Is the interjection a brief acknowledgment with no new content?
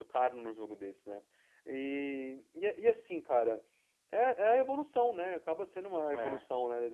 Yes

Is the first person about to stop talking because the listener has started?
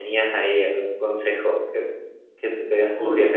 Yes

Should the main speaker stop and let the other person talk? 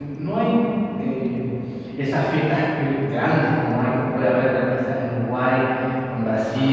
No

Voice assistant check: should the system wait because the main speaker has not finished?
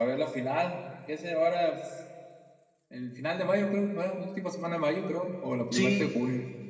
No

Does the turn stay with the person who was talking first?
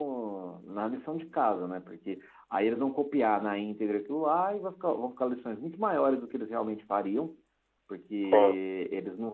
Yes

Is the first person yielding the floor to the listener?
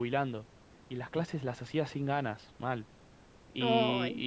No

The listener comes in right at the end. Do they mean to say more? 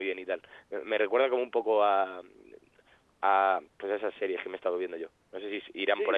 Yes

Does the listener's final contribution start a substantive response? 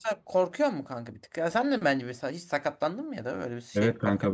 Yes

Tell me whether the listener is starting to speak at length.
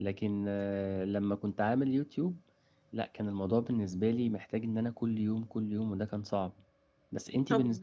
Yes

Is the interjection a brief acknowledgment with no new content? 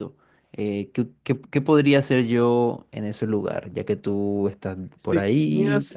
No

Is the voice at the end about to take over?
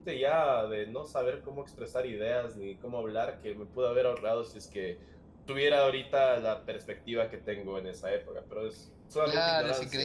Yes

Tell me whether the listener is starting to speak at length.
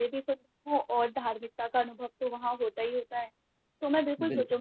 No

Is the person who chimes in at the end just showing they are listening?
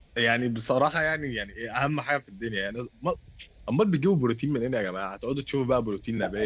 No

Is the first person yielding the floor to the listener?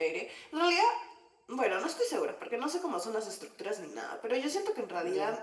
No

